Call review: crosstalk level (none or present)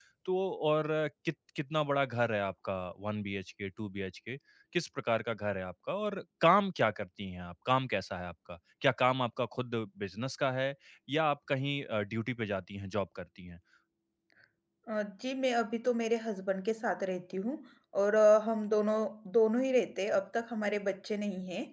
none